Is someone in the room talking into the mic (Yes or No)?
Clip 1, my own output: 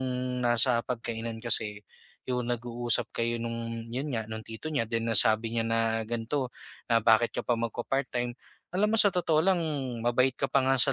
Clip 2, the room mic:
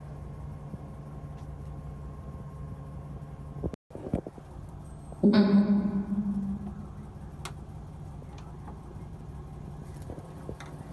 Yes